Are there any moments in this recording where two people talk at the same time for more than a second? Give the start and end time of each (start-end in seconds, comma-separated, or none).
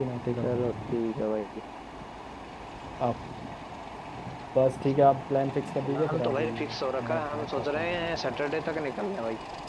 5.8-8.6